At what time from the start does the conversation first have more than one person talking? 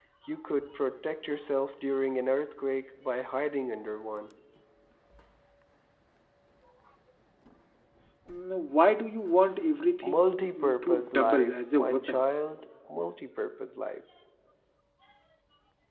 10.0 s

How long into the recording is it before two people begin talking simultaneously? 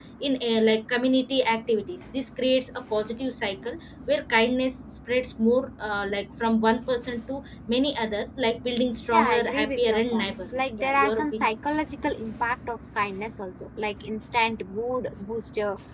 9.1 s

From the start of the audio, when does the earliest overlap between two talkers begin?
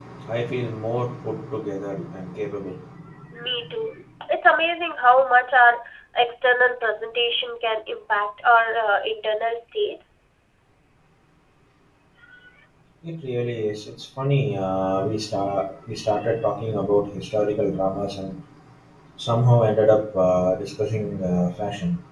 none

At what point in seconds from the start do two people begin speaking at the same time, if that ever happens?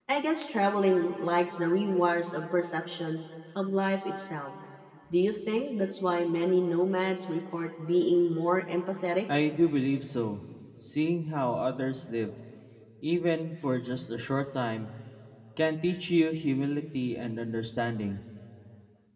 none

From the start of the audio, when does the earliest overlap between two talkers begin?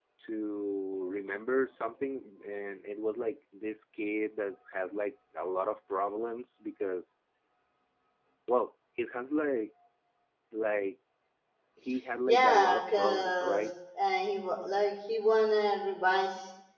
12.3 s

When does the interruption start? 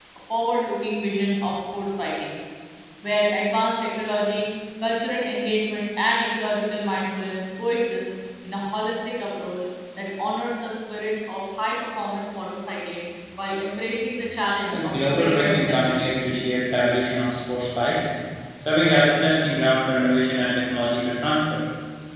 14.7 s

